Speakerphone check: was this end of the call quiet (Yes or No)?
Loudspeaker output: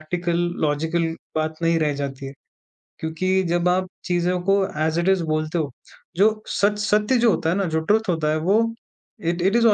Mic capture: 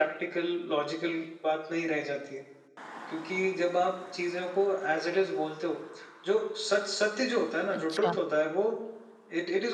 No